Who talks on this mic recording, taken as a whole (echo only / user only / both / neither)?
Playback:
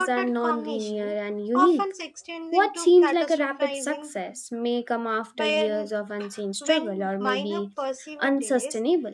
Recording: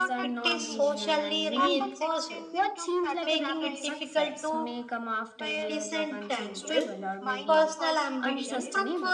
both